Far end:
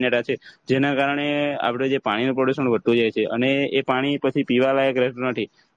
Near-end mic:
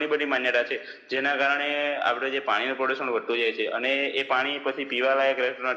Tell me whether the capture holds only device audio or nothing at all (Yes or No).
Yes